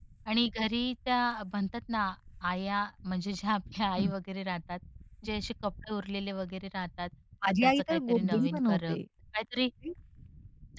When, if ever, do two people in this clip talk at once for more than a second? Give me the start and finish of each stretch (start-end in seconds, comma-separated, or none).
7.5-9.0